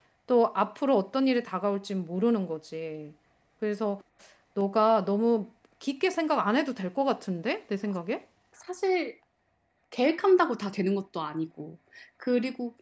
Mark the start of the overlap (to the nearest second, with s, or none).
none